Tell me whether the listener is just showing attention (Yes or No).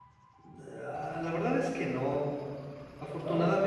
Yes